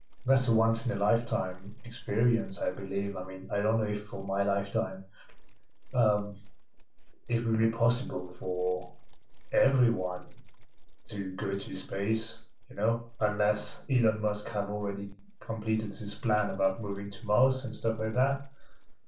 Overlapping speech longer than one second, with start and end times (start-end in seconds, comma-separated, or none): none